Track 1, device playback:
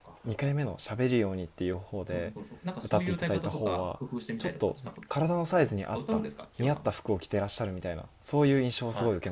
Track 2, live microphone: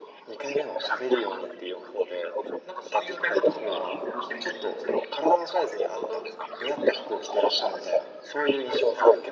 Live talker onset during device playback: none

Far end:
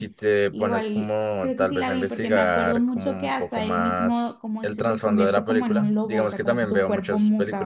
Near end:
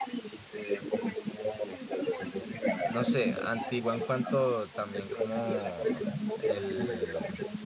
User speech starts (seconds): 3 s

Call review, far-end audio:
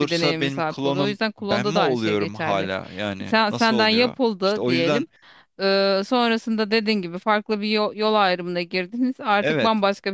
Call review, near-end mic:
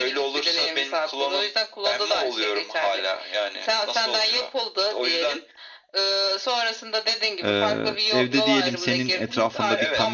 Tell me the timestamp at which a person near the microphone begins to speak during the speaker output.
7 s

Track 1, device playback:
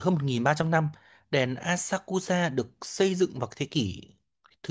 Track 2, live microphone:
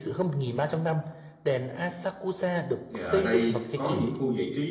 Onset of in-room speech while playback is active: 3 s

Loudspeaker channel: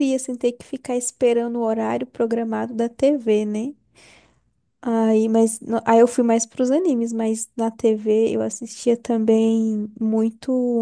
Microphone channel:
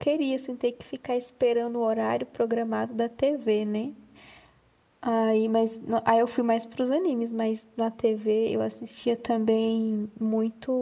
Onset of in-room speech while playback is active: none

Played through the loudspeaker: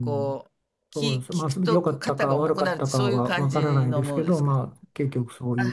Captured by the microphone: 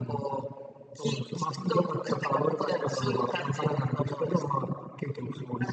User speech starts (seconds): none

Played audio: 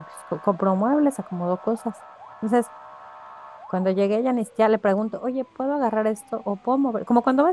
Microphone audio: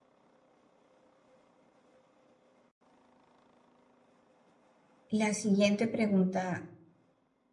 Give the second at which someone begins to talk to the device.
5 s

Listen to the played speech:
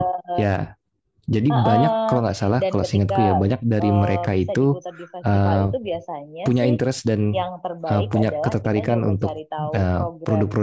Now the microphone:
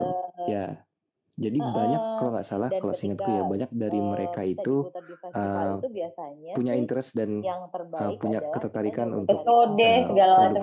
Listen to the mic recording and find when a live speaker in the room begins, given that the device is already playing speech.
9 s

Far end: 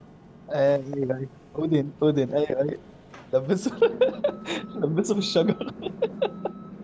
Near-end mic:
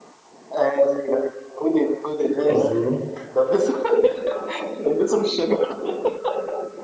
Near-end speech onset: 3 s

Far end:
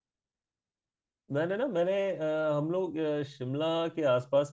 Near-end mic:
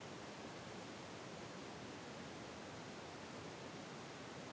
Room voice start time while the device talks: none

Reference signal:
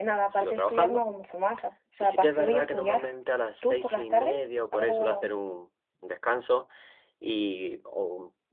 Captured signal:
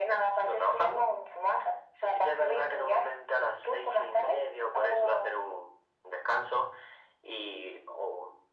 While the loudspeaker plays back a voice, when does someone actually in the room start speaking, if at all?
none

